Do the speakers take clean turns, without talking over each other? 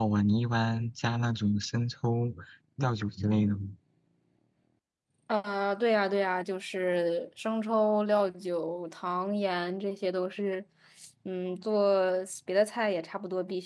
Yes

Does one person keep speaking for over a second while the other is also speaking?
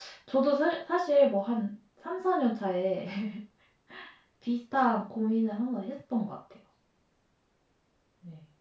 No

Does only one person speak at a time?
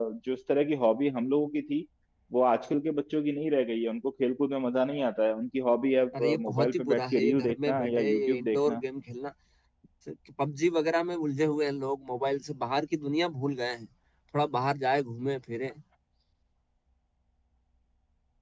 No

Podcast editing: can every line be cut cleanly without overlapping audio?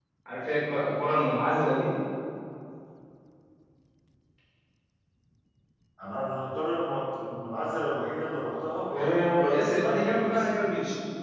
No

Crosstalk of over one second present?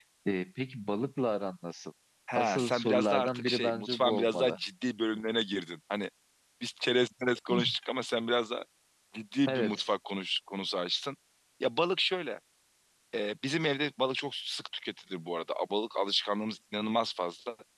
Yes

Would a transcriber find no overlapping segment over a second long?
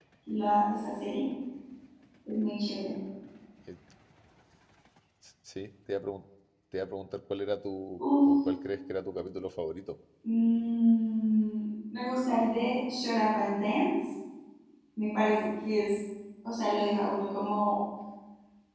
Yes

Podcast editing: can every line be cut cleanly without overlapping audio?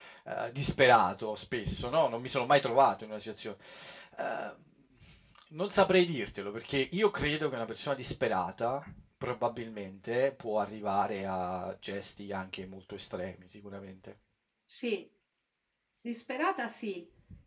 Yes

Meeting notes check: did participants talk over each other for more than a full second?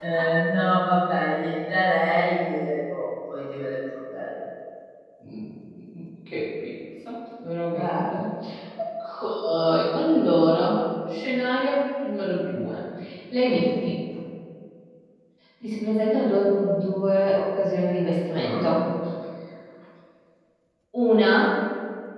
No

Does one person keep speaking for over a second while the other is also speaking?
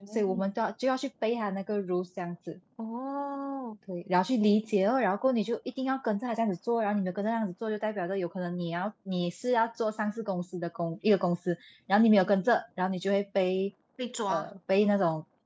No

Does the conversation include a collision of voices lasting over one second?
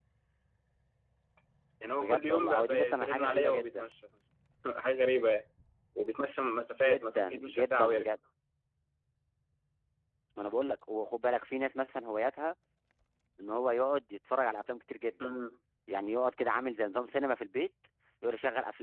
Yes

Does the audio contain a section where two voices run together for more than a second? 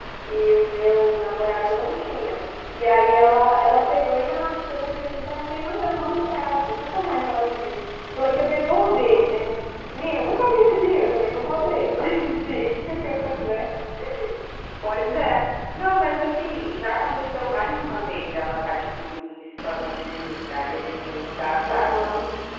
No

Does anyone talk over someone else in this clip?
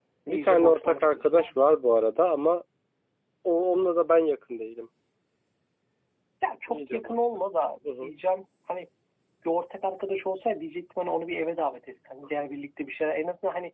Yes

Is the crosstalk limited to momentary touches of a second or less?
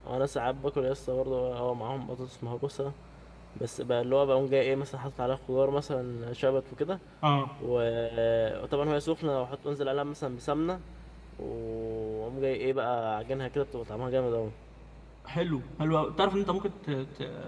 Yes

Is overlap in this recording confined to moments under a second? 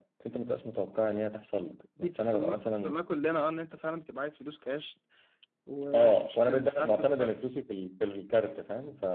No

